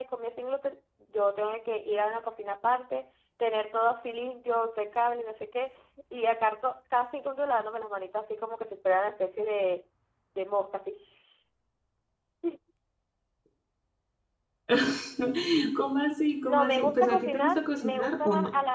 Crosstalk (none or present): present